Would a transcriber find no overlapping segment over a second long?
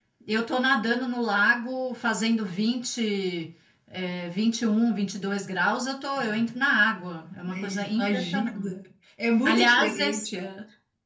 No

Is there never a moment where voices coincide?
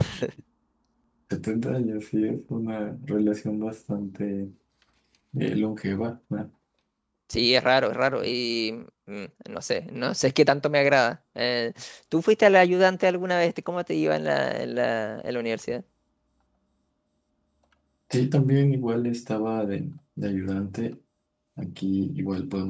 Yes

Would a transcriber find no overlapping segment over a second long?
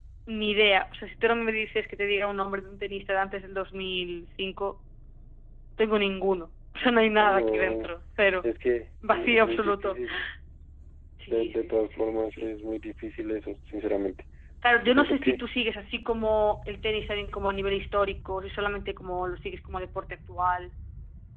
No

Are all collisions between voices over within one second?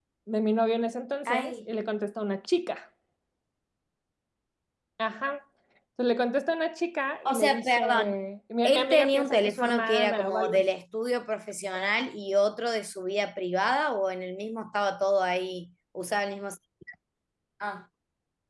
No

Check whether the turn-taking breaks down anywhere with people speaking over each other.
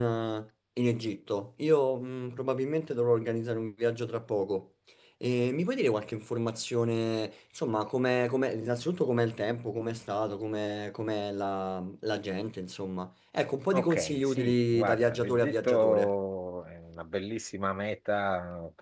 Yes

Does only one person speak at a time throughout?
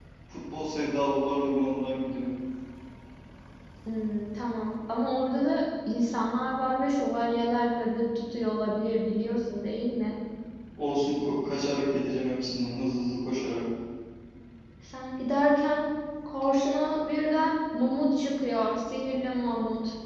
Yes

